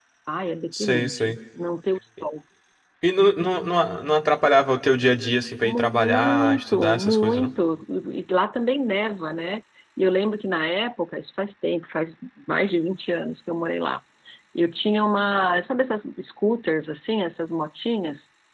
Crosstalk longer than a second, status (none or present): present